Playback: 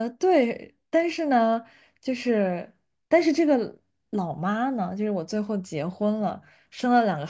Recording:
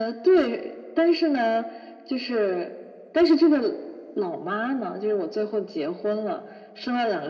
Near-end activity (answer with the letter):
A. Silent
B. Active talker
A